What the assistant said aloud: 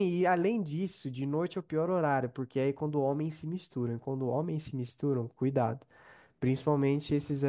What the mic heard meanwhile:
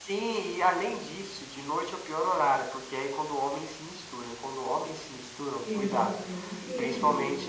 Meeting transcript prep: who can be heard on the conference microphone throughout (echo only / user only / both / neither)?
both